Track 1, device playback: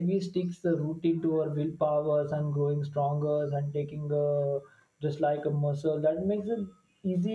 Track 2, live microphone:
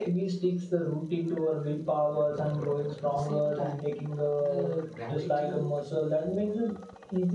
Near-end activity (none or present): present